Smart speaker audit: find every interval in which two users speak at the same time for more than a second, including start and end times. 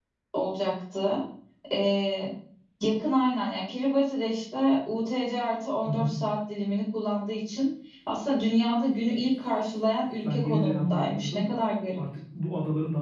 10.2-11.4

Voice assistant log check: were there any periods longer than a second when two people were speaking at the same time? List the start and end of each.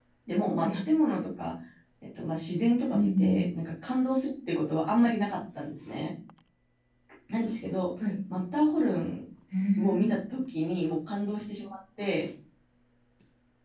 none

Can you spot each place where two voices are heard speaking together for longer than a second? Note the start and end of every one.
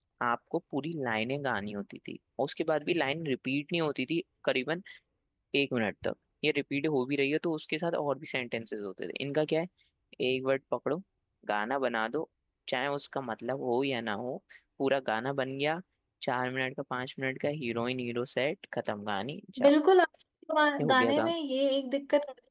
none

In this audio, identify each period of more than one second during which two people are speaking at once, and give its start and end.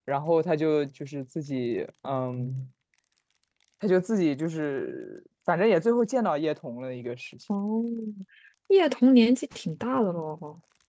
none

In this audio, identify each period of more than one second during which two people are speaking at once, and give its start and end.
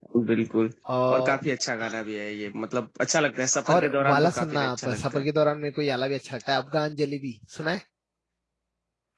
3.7-5.3

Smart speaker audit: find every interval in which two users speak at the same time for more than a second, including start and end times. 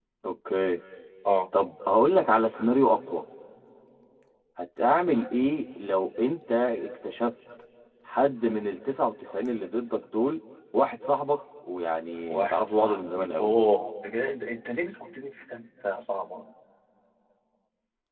12.3-13.5

